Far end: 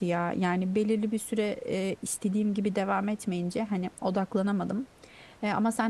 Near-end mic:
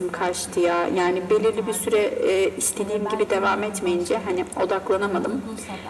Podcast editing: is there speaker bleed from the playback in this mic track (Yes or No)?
Yes